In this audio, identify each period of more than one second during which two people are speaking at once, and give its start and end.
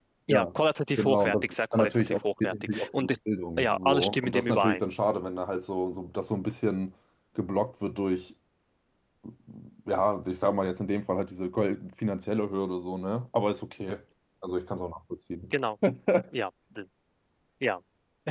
1.0-3.1, 3.6-4.8

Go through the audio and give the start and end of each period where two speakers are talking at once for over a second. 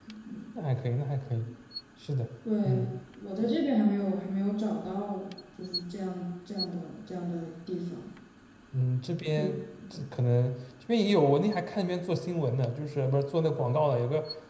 none

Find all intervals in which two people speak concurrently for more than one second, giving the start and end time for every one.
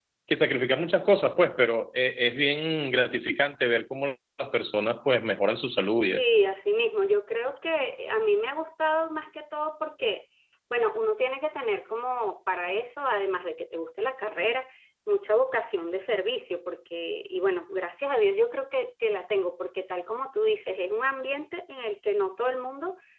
none

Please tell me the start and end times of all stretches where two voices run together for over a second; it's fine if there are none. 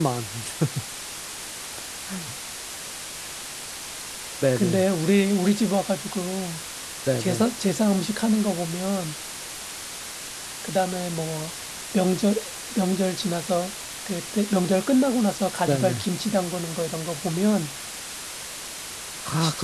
none

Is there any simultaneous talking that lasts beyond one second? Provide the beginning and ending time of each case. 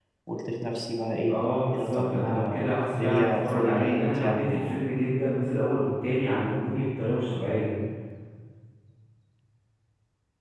1.7-4.8

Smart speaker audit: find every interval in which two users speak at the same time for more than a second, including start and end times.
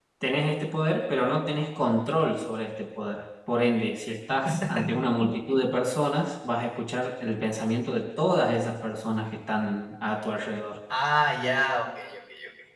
none

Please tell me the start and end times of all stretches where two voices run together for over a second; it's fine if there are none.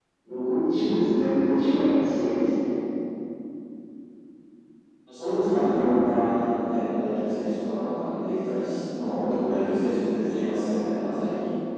none

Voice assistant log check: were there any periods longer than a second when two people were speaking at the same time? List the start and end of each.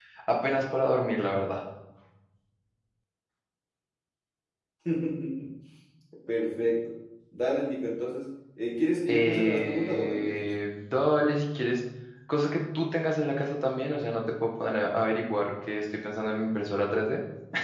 9.1-10.4

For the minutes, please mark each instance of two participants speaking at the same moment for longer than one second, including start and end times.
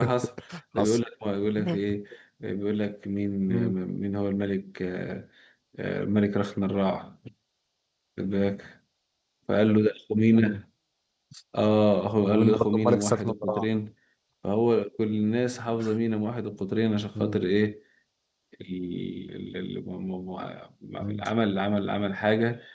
12.2-13.7

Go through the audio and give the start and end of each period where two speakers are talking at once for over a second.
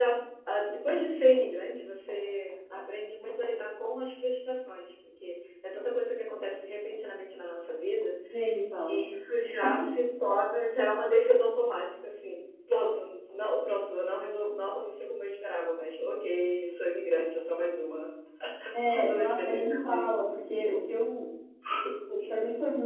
18.7-20.1

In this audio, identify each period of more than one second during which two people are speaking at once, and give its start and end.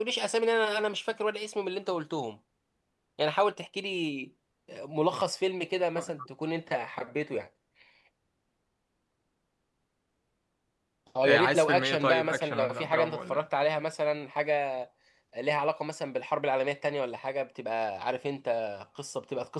11.2-13.5

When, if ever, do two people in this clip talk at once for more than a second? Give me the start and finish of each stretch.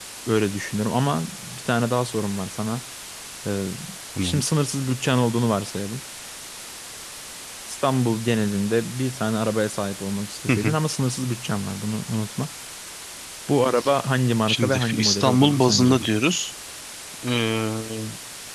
14.5-16.0

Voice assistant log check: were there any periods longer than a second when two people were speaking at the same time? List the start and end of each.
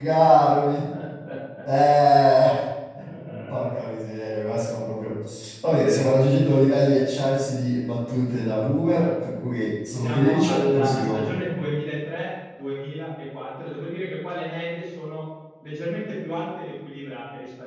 10.0-11.5

